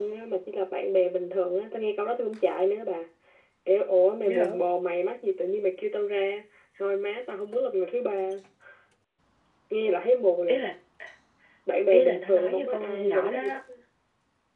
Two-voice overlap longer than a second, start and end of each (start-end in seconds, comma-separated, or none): 11.9-13.6